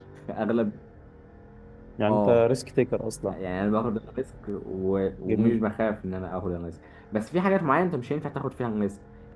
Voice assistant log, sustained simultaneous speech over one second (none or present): none